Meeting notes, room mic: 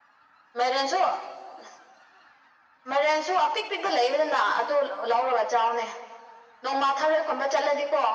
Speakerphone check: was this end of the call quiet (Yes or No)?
Yes